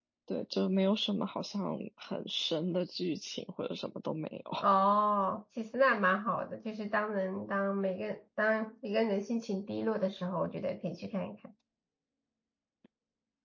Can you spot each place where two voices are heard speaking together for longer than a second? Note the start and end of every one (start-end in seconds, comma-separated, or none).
none